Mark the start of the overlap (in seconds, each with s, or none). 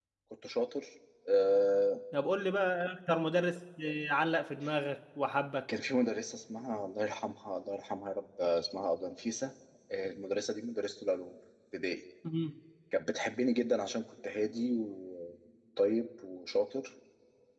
none